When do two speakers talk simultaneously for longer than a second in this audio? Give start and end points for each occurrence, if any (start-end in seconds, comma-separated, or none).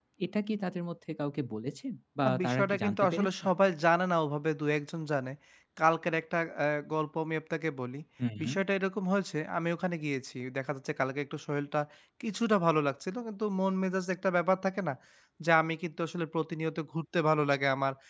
2.2-3.4